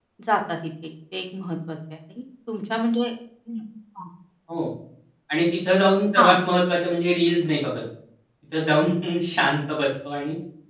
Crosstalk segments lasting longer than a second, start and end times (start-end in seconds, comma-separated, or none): none